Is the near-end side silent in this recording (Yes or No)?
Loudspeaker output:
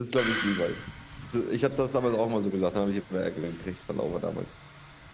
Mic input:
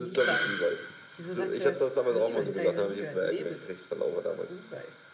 No